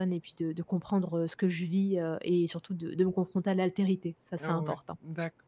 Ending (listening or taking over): taking over